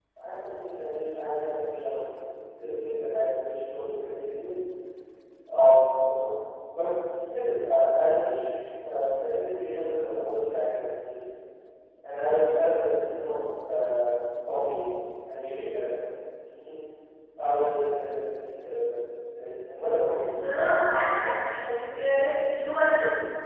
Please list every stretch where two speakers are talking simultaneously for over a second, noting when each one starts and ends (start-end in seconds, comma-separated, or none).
none